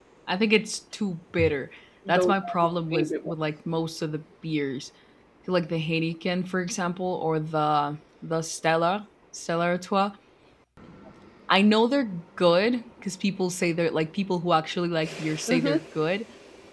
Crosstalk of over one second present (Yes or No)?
Yes